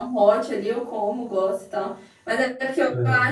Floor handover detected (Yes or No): No